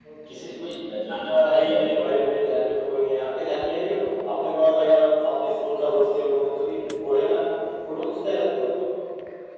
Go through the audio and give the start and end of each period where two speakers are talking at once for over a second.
none

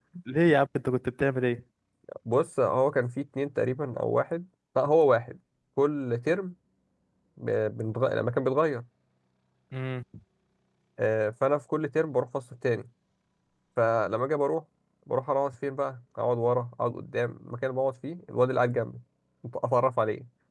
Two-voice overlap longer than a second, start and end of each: none

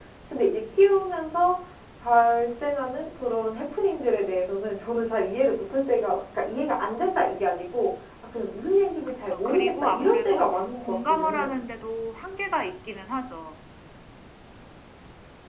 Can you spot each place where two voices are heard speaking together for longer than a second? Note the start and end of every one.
9.1-11.6

